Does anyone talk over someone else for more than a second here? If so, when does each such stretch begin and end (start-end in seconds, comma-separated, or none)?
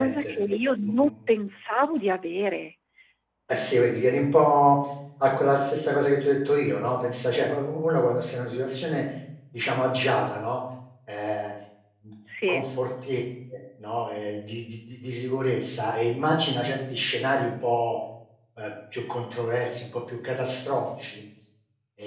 none